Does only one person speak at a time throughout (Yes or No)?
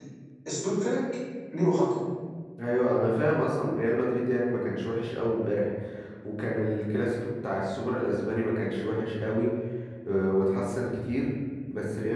Yes